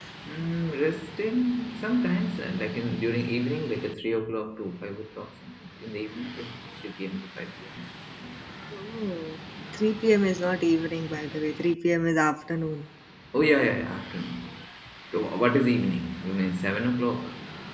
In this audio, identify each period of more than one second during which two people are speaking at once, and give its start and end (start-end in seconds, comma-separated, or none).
none